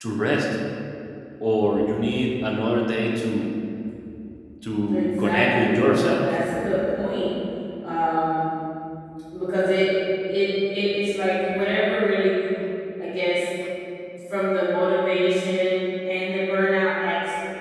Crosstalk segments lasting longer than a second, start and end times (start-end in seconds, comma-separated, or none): 4.9-6.3